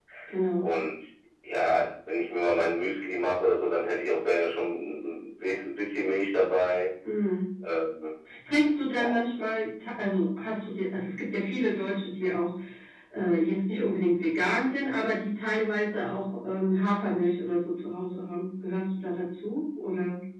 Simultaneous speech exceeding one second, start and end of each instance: none

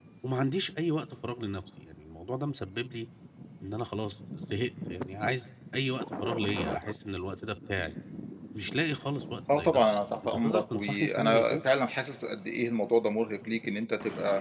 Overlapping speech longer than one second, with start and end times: 10.2-11.6

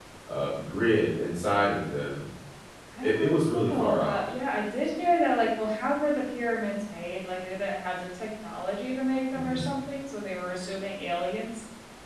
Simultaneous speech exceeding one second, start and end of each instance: 3.0-4.2

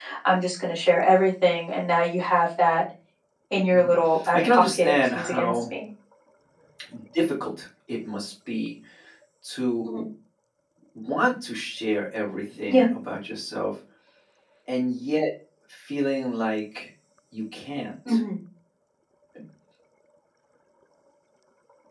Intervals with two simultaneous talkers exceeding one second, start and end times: 4.3-5.6

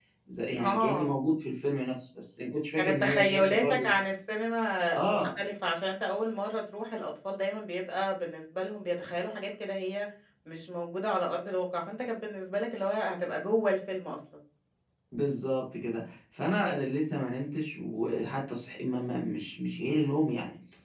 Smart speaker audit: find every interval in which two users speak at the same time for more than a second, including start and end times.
2.8-4.0

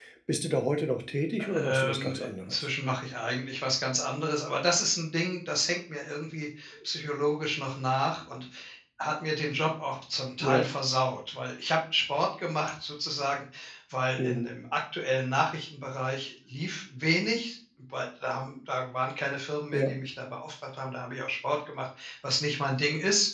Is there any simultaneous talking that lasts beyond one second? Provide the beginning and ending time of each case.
1.4-2.7

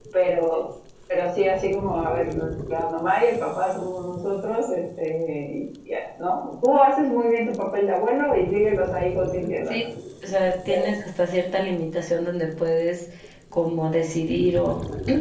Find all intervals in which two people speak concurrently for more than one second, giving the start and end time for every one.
none

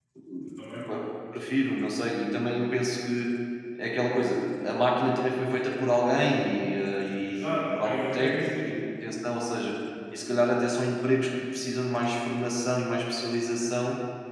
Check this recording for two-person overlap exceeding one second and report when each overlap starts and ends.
7.3-8.7

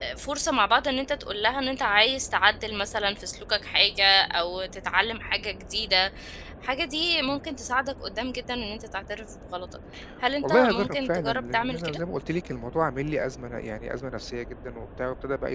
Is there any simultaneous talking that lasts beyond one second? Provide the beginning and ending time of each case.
10.4-12.0

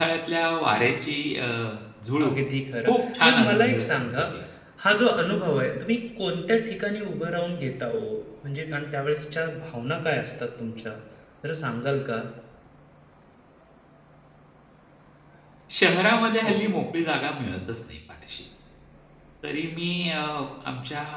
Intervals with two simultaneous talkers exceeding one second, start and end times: 2.9-4.2

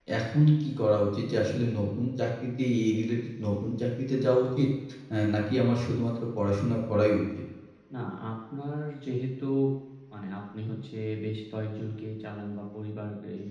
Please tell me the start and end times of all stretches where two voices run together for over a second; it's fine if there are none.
none

